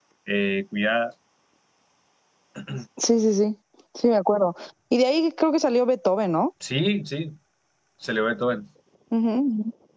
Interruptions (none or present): none